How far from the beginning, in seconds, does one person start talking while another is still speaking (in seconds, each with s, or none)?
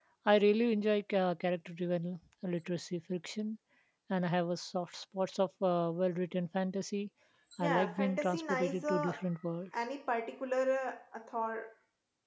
7.6 s